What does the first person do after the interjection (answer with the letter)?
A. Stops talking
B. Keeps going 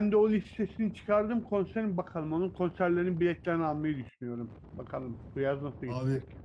A